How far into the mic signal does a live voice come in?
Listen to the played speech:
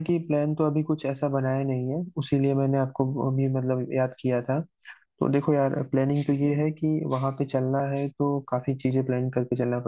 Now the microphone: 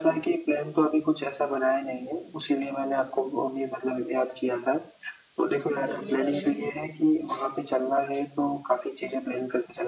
5.5 s

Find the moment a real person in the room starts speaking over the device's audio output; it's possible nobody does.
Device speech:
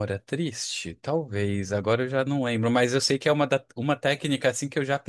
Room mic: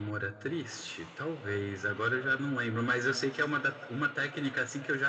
none

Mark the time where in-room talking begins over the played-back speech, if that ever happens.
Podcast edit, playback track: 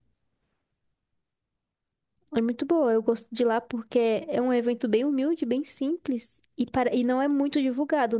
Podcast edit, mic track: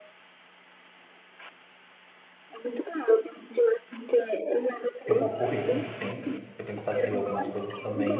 5.0 s

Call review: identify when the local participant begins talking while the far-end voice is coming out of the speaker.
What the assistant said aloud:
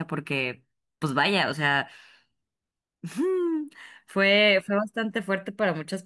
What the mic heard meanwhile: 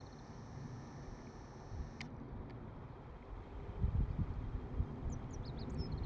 none

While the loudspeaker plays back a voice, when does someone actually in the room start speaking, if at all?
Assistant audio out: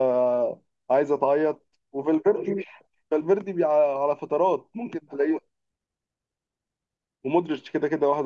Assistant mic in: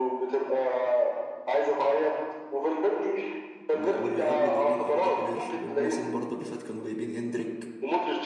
3.7 s

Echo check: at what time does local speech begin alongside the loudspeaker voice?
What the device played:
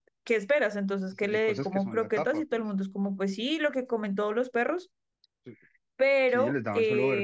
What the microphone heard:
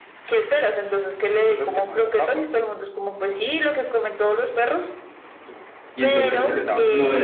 5.9 s

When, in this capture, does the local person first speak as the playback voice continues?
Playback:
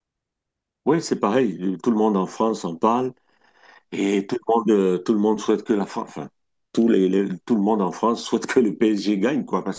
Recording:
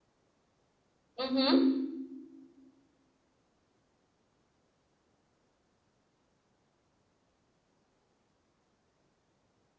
1.2 s

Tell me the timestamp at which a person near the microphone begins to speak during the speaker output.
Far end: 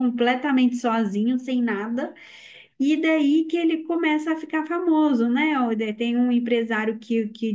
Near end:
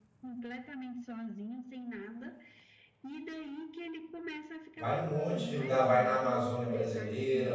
4.8 s

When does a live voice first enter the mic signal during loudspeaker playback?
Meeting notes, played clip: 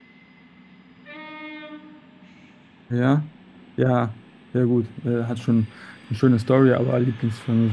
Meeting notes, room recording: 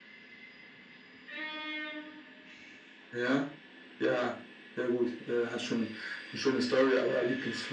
none

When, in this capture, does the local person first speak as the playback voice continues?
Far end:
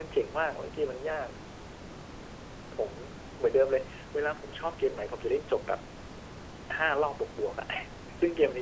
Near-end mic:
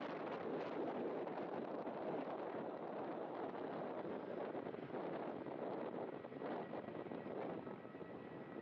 none

